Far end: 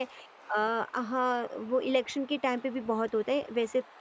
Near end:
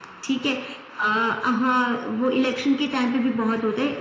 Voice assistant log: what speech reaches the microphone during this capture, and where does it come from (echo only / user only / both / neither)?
echo only